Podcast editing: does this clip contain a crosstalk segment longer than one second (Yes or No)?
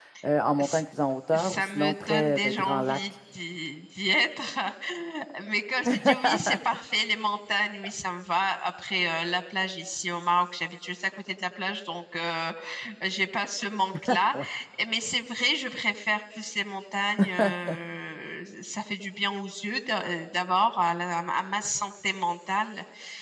Yes